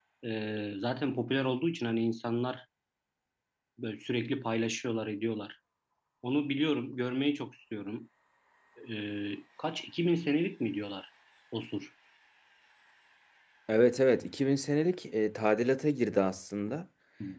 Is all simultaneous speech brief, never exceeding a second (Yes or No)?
Yes